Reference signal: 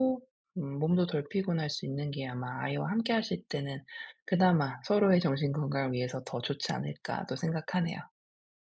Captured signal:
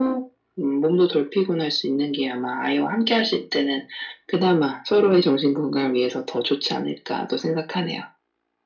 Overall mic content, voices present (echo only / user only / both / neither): echo only